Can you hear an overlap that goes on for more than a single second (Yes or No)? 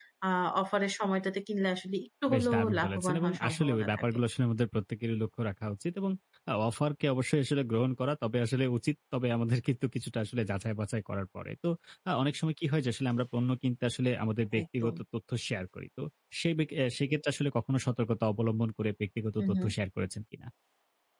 Yes